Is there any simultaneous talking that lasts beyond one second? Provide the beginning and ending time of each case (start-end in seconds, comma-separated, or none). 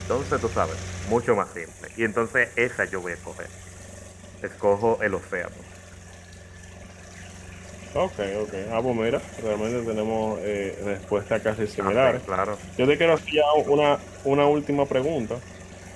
none